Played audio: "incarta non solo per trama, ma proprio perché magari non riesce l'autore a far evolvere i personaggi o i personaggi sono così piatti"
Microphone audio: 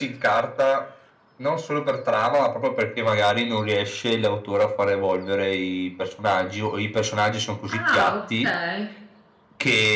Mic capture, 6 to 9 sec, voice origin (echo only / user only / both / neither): both